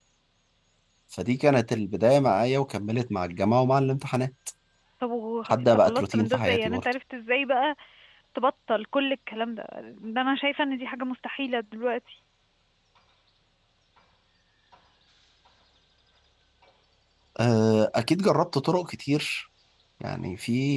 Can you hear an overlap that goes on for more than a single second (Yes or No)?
Yes